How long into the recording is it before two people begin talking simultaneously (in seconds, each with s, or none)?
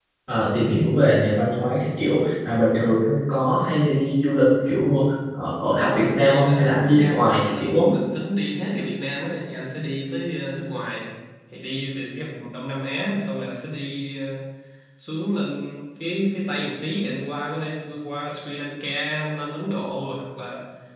5.8 s